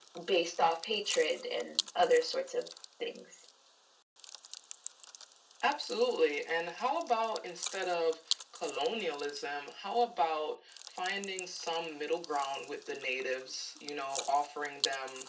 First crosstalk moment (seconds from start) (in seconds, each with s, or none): none